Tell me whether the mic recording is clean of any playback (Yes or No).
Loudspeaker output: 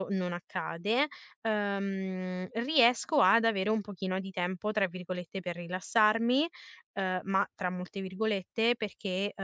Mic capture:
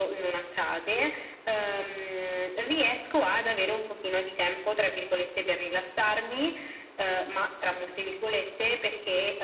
No